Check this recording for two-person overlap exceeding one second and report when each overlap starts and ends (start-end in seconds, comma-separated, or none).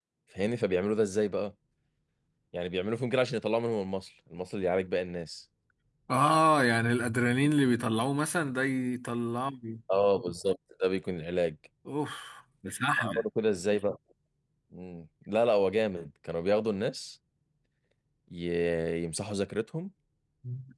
none